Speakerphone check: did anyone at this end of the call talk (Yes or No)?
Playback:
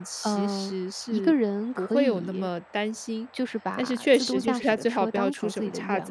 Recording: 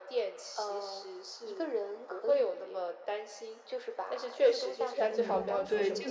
Yes